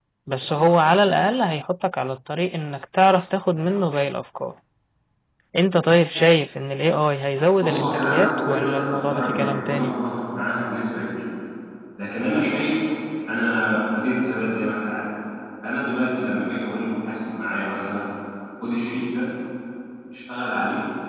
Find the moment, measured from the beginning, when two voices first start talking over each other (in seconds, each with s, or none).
7.6 s